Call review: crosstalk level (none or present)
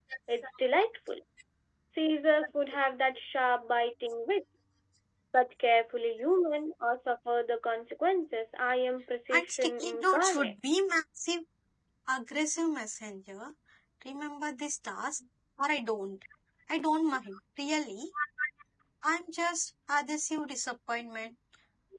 present